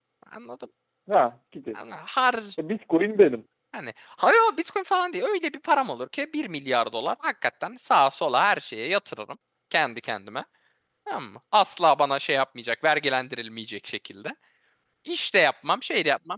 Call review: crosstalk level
none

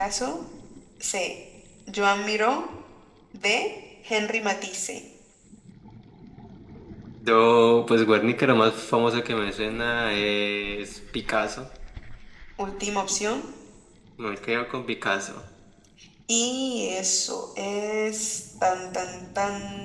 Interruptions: none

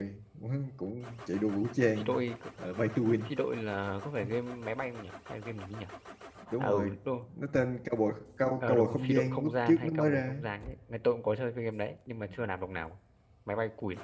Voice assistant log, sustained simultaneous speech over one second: present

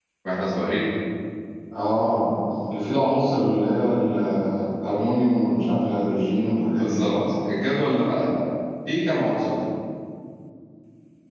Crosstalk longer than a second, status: none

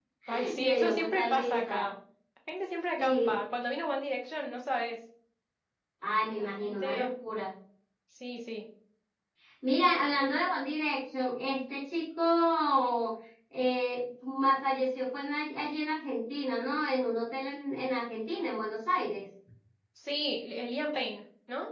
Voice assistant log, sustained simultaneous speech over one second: present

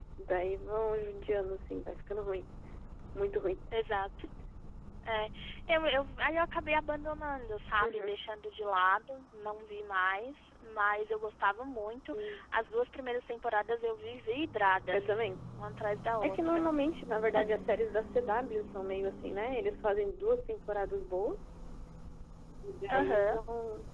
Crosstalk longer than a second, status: none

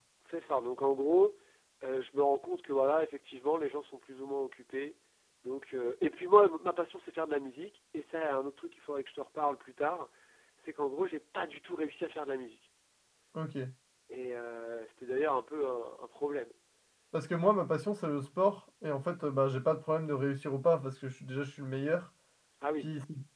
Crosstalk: none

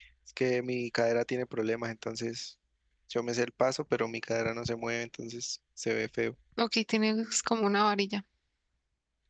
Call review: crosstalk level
none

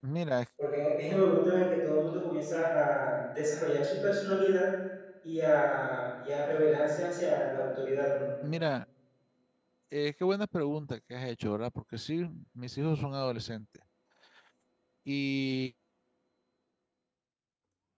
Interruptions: none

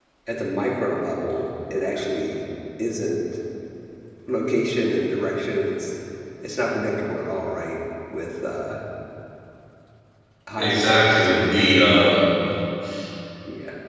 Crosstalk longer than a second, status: present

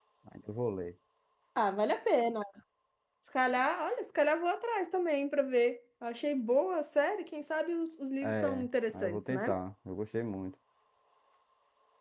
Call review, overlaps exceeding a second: present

